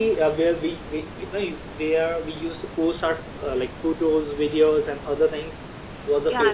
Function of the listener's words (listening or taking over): taking over